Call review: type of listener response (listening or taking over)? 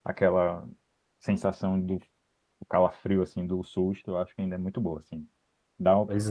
listening